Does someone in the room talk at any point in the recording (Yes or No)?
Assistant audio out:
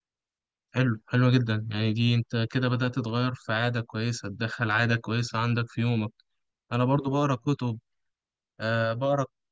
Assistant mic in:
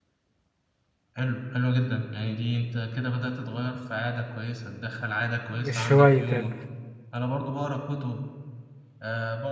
Yes